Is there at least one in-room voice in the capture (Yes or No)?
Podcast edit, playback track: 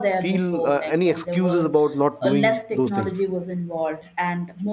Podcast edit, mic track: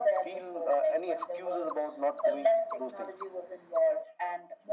No